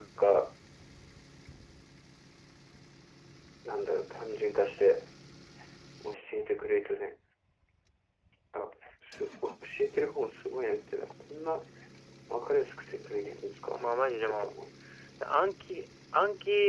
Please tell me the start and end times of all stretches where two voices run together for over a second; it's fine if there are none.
none

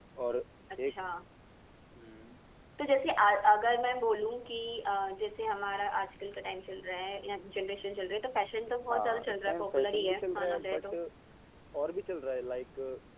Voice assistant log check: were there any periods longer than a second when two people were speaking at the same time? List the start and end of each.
8.9-10.8

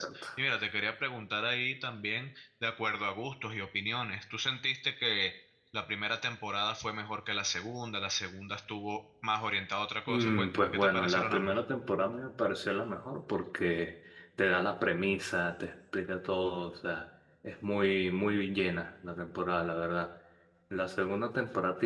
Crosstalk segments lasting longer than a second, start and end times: 10.1-11.6

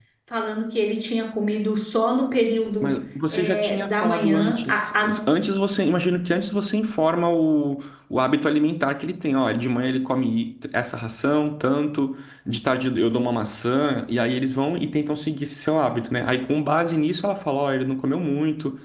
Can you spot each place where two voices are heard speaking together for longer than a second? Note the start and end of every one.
3.3-5.1

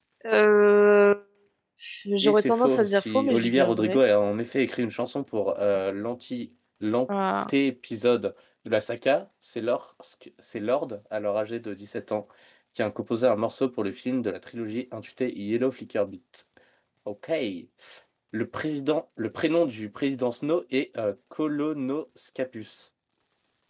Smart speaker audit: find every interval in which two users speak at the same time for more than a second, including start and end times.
2.2-4.0

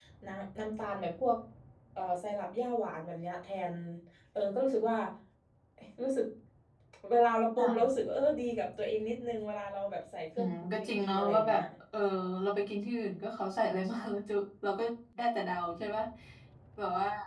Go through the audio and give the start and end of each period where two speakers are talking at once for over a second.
10.4-11.6

